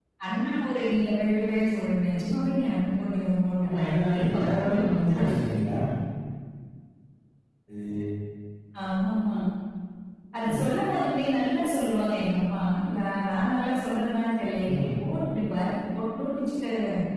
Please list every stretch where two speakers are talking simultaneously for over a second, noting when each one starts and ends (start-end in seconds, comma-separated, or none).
3.6-5.3